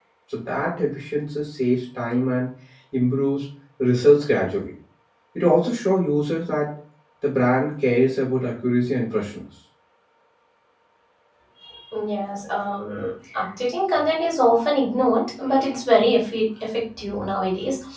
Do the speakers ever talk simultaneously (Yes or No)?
No